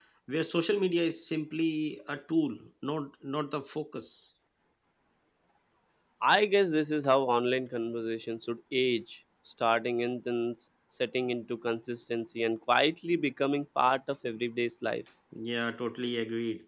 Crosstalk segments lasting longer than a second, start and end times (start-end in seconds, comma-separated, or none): none